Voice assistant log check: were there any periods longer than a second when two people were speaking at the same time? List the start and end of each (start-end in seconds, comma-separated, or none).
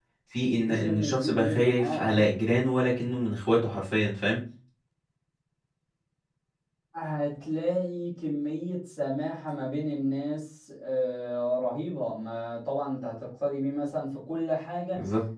0.7-2.3